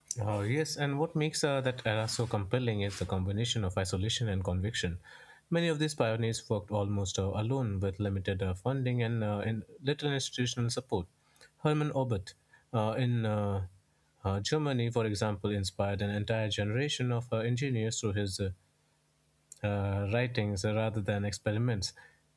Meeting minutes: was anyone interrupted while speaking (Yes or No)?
No